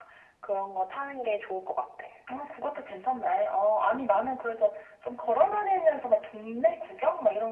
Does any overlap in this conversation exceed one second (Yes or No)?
No